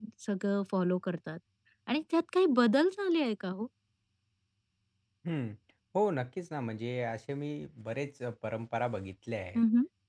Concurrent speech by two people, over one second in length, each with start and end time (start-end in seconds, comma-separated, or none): none